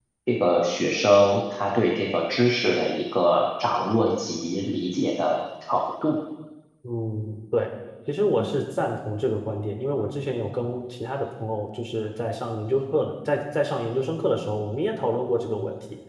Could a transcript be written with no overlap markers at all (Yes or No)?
Yes